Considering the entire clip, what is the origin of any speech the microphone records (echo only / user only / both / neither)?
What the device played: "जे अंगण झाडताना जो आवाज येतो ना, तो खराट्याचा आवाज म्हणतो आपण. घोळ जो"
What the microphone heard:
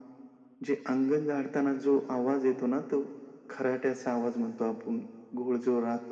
echo only